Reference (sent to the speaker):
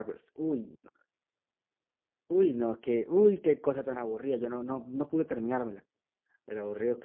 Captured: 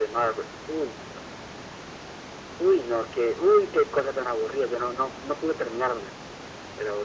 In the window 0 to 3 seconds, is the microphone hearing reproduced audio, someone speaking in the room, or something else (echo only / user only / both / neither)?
echo only